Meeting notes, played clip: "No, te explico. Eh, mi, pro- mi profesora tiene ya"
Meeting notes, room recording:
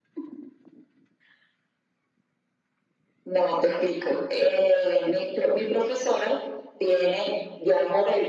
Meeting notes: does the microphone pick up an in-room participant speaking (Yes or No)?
No